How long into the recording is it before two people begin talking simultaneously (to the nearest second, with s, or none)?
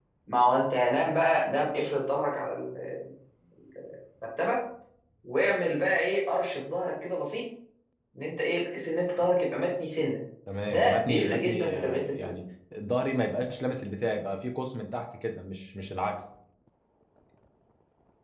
11 s